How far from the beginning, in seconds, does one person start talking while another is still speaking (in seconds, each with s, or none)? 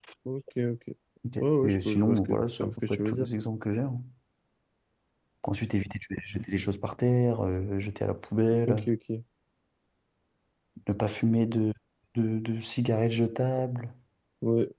1.4 s